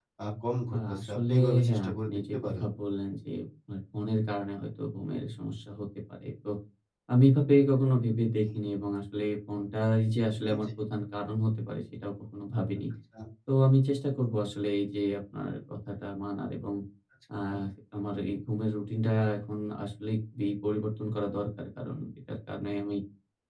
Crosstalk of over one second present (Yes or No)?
Yes